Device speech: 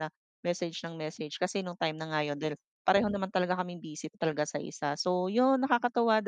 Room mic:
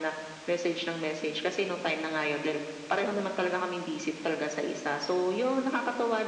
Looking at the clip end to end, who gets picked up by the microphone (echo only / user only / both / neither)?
echo only